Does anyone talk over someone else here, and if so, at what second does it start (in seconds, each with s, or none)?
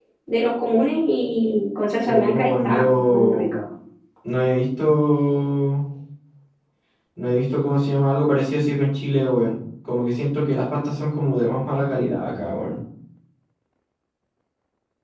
2.1 s